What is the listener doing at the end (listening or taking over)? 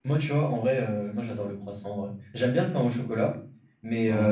listening